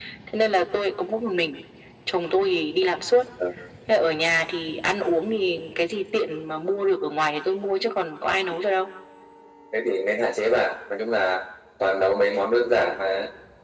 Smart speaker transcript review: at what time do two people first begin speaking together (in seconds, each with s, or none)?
none